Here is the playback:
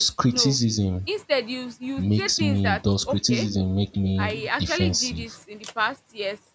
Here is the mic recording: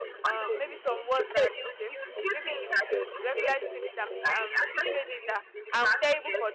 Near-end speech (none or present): present